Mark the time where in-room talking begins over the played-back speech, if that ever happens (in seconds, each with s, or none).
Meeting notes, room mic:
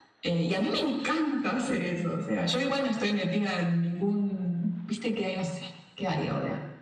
none